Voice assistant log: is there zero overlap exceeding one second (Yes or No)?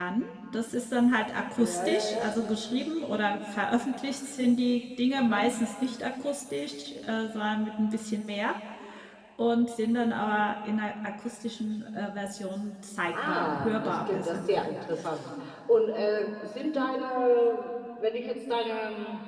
No